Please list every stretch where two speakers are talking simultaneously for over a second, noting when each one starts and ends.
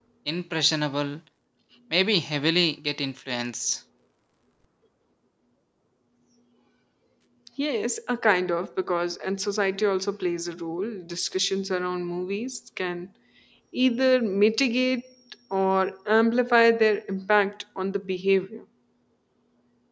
none

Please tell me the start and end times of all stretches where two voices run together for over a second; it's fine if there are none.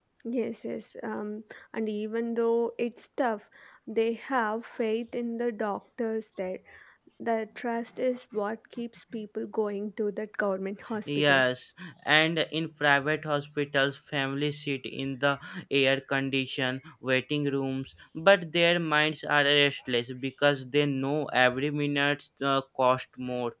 none

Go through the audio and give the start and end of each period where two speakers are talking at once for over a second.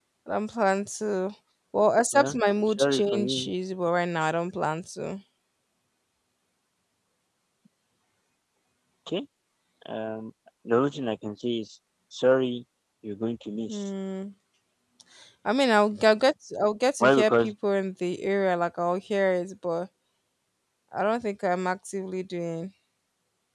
2.1-3.5

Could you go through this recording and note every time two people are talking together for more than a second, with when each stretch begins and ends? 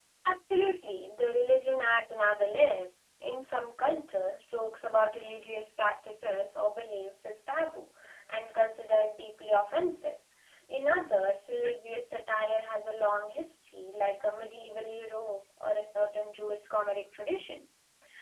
none

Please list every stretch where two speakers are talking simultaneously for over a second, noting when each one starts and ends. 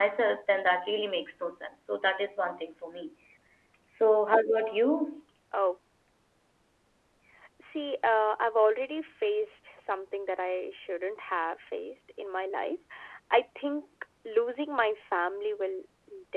none

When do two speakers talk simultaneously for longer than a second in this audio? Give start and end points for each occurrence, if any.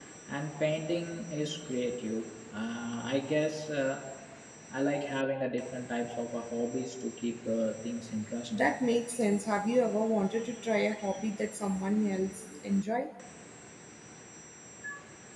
none

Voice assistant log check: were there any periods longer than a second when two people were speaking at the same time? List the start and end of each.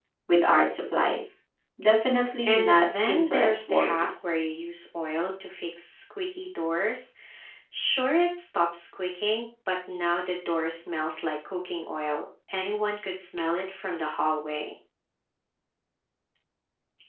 2.4-3.9

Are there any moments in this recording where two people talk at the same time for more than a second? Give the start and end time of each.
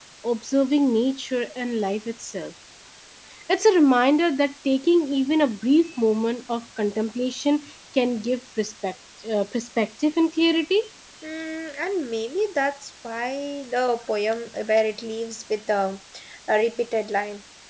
none

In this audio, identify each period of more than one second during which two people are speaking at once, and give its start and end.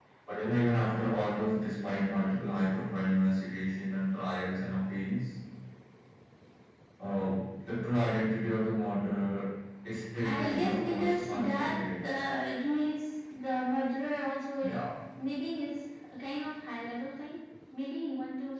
10.2-12.1

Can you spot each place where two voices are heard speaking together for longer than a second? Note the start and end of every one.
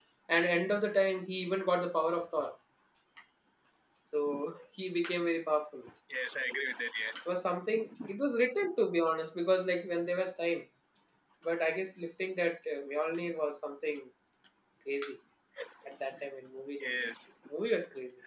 none

